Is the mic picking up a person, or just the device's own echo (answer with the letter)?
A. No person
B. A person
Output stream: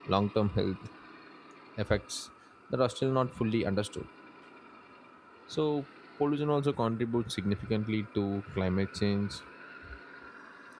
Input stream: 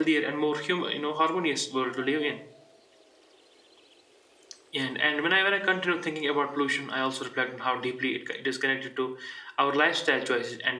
B